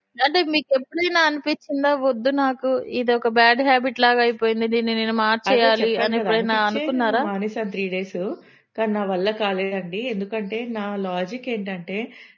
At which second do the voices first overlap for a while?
5.5 s

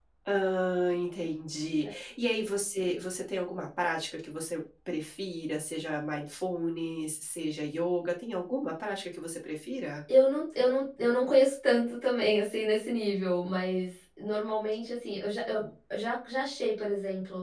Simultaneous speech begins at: none

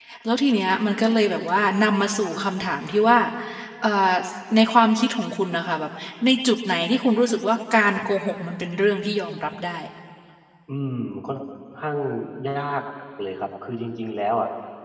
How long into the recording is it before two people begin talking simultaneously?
none

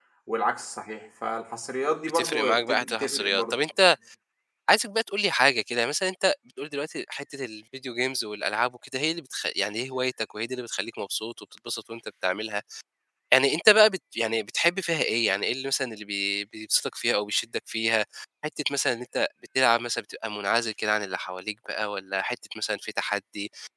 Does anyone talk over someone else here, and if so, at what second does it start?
2.1 s

